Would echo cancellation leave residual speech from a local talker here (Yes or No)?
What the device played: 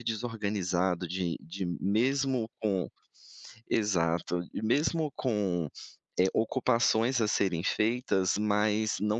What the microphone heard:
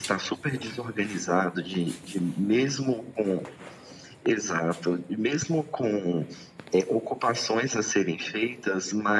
No